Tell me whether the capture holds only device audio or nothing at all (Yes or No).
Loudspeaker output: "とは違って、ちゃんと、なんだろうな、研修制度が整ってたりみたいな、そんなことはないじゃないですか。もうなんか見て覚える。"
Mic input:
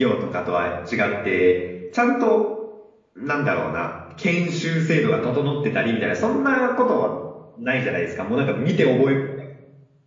Yes